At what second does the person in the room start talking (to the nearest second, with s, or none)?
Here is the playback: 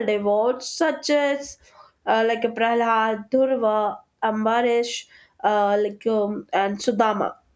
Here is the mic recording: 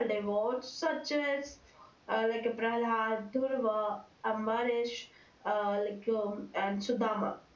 none